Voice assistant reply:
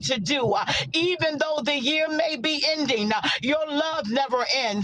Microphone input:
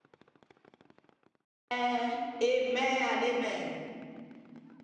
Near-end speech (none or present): present